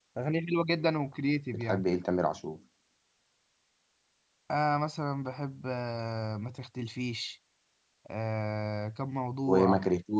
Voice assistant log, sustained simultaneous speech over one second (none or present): none